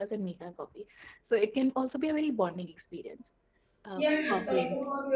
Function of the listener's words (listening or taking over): taking over